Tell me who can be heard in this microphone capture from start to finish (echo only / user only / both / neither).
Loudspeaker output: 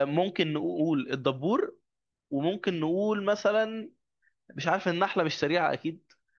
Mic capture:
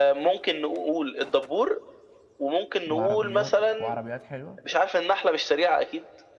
both